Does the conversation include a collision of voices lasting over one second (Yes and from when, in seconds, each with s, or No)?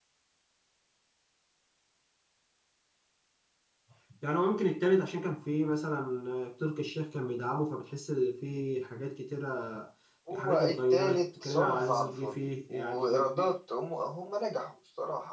Yes, from 10.3 s